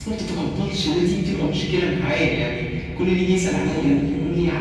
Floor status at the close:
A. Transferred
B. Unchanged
B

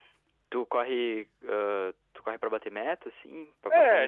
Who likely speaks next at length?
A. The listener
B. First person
A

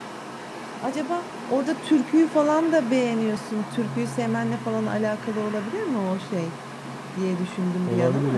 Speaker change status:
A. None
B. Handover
B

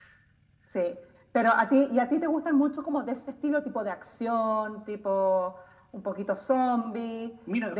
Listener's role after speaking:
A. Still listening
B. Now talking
B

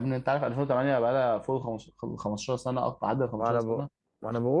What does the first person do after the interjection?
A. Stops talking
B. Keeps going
A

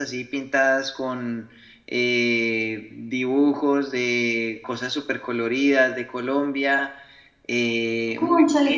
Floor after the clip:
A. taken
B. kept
A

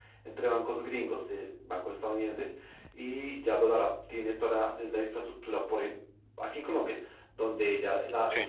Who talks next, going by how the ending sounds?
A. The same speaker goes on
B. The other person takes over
A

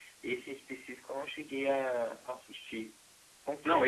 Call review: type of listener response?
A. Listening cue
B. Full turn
B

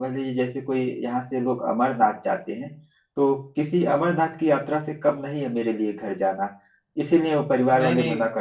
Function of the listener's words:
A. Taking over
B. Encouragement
B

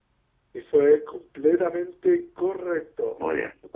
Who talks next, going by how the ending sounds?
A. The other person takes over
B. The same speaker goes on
B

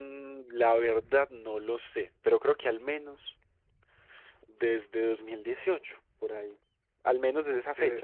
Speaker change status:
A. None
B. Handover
A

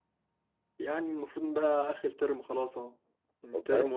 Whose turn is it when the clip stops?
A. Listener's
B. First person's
B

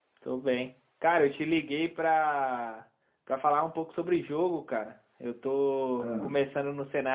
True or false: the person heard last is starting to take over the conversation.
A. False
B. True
A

